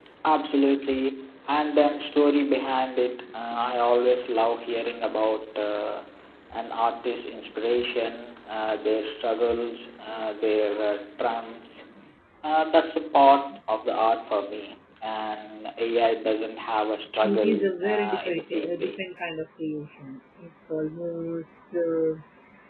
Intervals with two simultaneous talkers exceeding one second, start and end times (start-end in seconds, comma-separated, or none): 17.2-19.0